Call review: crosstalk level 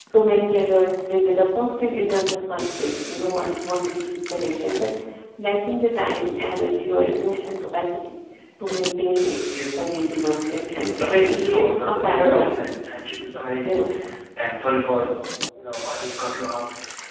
present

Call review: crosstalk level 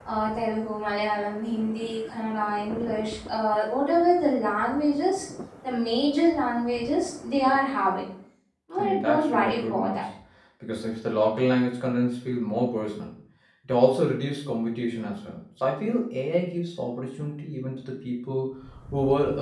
present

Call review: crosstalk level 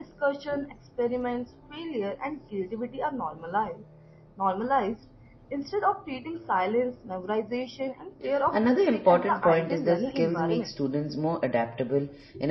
present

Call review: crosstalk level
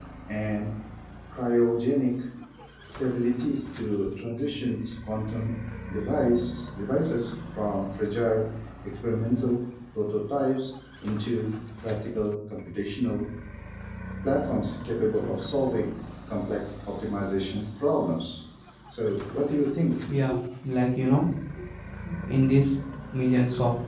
none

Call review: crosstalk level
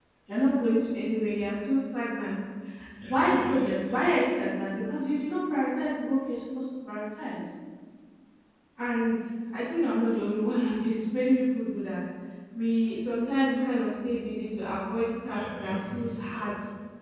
present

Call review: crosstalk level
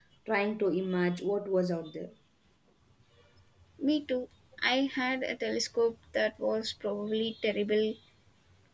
none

